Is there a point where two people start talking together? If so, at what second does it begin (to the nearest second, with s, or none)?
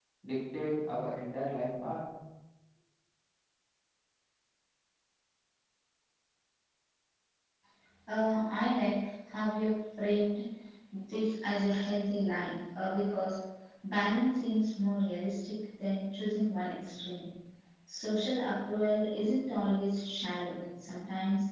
none